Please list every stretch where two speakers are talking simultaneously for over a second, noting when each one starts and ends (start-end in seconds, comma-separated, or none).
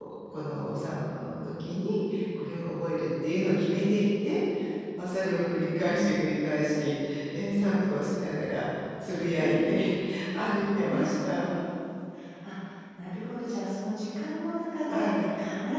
none